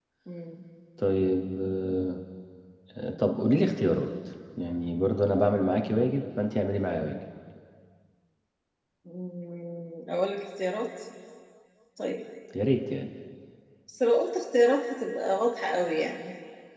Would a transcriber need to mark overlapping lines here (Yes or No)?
No